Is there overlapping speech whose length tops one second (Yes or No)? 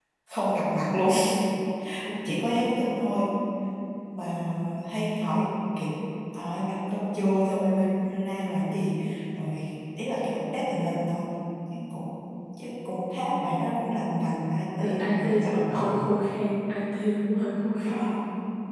Yes